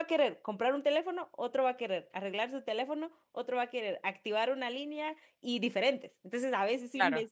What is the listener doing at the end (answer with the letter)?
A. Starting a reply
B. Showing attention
B